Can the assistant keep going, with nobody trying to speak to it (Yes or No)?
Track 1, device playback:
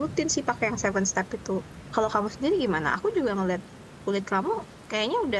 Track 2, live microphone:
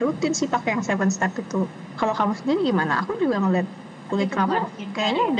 No